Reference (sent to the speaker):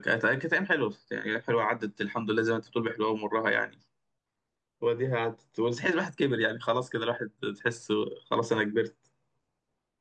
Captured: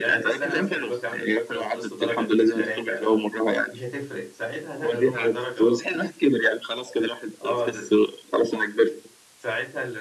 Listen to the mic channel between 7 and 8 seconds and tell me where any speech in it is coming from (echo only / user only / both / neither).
both